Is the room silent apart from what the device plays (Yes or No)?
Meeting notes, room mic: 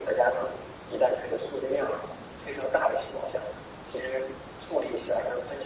Yes